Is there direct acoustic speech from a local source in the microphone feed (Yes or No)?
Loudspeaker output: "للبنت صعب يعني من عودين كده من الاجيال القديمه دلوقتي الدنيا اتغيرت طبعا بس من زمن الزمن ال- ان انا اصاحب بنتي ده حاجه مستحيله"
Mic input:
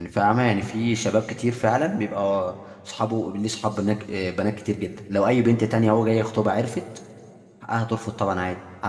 Yes